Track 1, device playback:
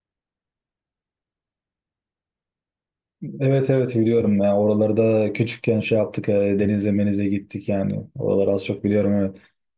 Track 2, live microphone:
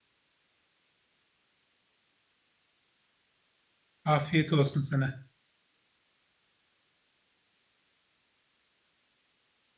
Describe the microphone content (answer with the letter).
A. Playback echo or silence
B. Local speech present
B